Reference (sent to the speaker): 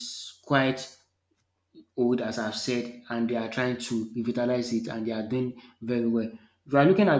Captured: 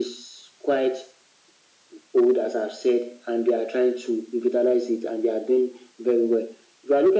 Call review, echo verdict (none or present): present